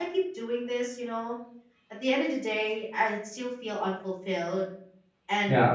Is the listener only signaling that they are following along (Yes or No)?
Yes